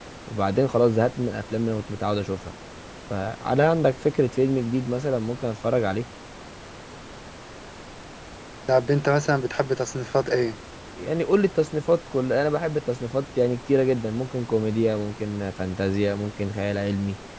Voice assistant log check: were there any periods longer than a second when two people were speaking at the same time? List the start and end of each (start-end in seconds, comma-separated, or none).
none